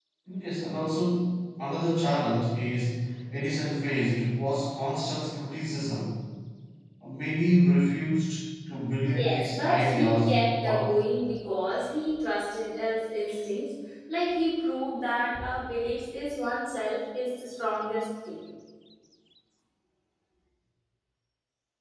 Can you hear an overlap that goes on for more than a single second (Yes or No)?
Yes